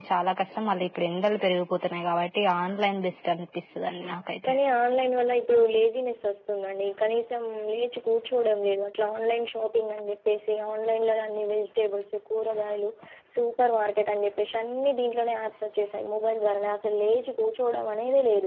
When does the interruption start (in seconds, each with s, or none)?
none